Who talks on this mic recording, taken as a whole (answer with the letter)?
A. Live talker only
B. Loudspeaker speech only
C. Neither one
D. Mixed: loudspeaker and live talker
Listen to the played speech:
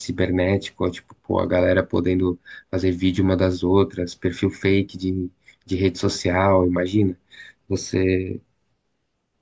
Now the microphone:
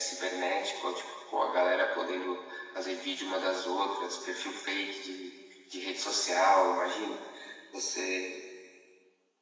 B